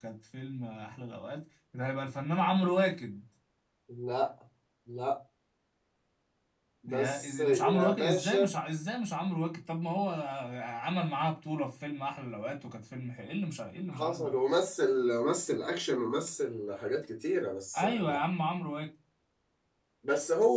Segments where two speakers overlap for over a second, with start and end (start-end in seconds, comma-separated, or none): 6.9-8.5